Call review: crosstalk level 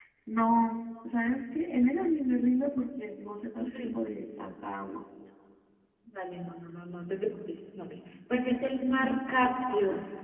present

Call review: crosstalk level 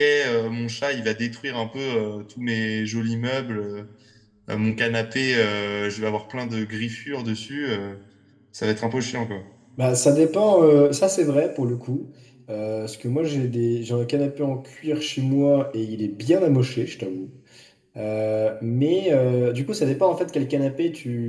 none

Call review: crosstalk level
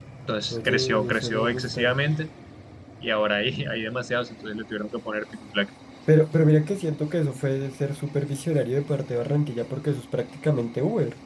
present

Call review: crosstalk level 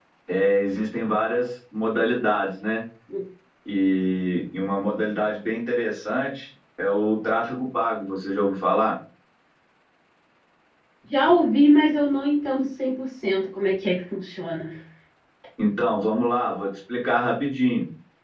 none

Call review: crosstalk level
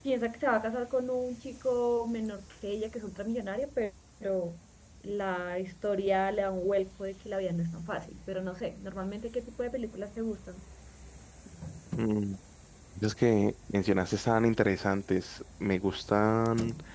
none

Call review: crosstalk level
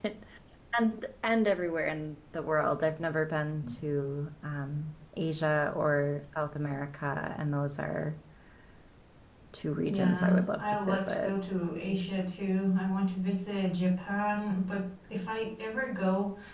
present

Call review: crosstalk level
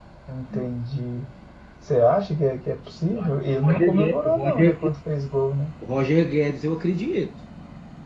present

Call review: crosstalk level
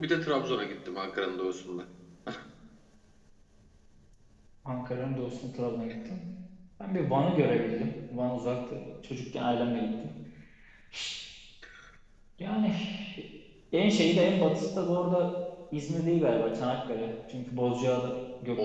none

